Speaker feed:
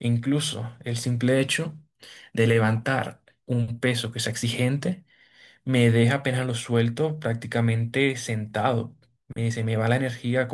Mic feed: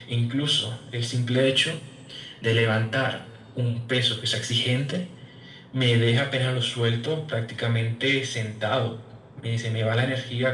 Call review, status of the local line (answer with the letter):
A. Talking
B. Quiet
B